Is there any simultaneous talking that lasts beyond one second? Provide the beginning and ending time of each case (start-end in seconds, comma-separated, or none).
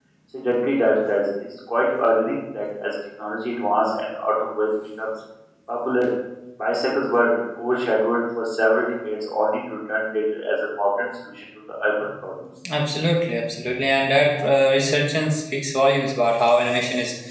none